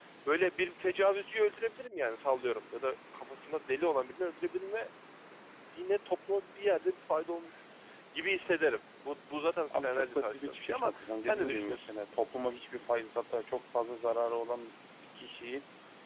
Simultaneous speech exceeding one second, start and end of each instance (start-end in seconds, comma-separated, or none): 9.7-12.0